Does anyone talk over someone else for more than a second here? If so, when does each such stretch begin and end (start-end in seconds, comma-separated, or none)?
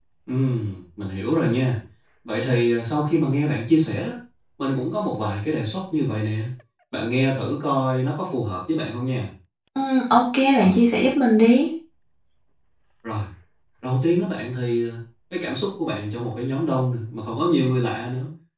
none